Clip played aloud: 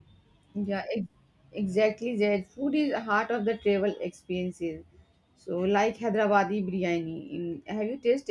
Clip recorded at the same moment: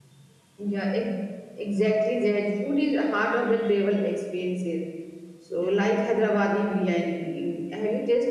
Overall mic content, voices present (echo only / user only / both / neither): echo only